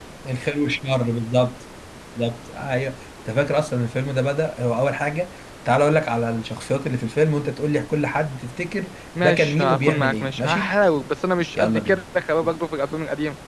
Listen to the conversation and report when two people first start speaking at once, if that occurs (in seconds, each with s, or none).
9.2 s